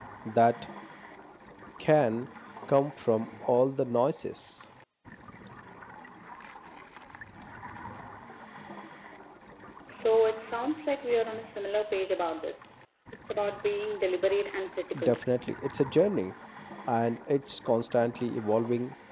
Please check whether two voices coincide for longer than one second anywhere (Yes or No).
No